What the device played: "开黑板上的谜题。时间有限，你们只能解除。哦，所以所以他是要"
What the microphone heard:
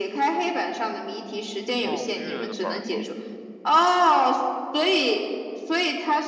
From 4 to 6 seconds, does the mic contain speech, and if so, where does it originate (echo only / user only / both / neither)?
echo only